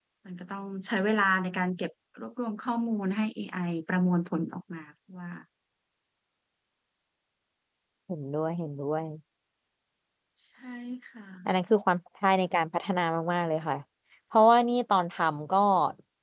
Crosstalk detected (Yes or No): No